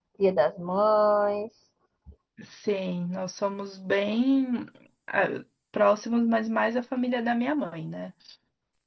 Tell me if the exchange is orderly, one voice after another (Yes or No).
Yes